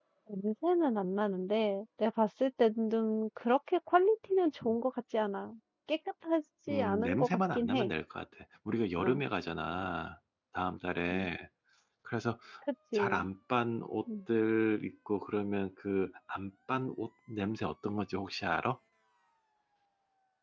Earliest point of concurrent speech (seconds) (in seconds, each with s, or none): 6.7 s